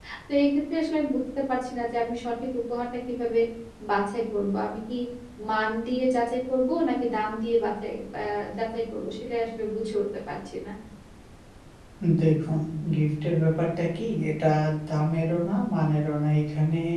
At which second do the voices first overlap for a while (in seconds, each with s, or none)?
none